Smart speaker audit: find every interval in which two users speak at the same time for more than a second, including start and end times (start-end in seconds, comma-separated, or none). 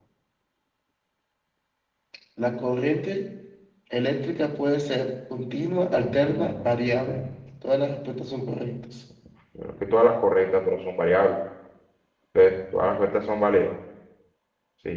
6.0-7.2